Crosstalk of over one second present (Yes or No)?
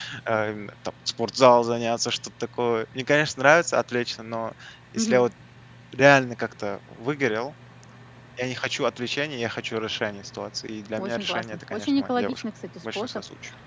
Yes